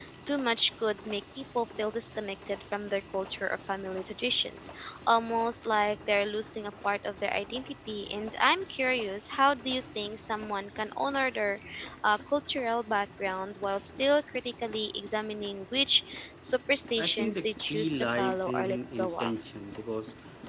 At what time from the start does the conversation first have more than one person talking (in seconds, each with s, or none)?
17.0 s